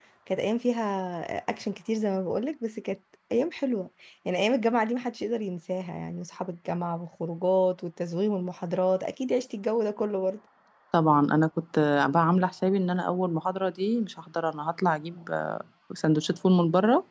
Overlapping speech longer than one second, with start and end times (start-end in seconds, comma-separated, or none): none